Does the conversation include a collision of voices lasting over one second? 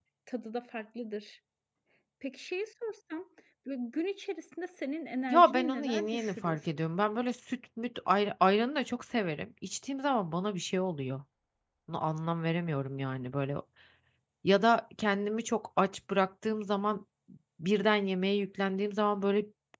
Yes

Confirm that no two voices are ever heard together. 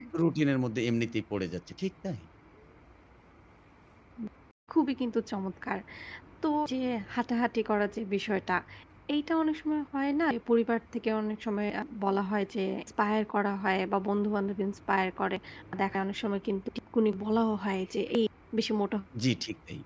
Yes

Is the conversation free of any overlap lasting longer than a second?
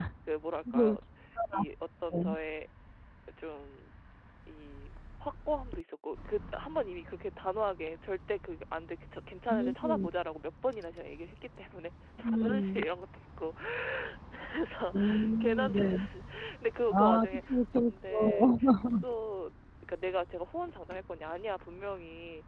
No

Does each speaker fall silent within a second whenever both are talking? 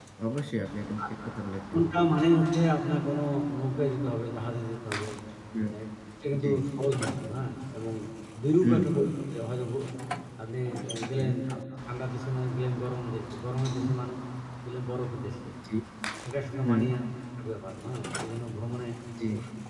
Yes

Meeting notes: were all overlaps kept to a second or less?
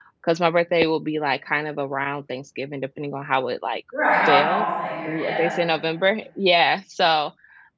Yes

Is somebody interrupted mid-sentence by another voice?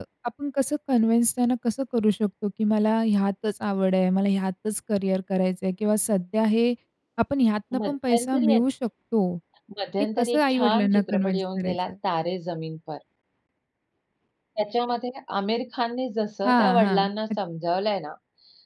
Yes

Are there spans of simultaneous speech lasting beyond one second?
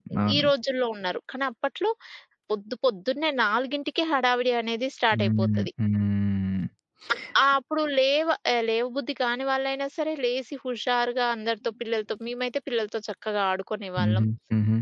No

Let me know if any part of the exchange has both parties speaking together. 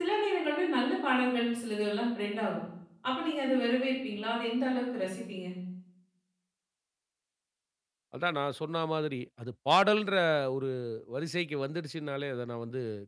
No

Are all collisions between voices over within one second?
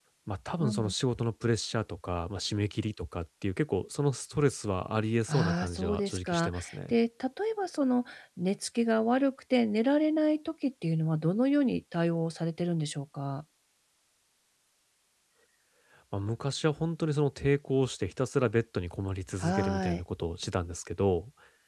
No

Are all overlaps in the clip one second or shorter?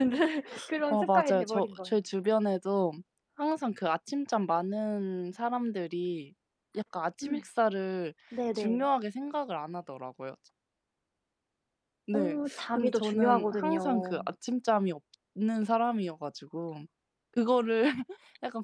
No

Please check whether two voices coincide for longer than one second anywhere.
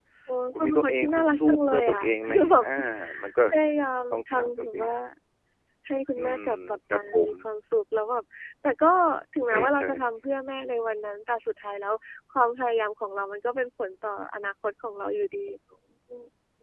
Yes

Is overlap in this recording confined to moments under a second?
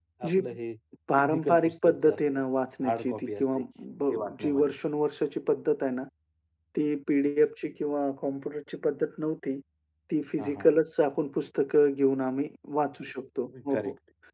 No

